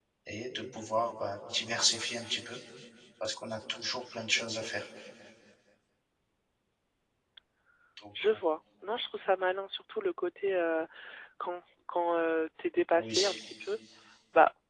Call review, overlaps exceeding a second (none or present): none